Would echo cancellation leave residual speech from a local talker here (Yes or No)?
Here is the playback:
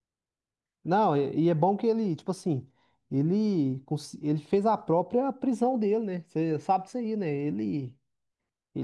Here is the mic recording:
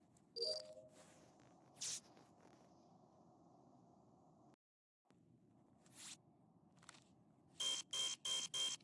No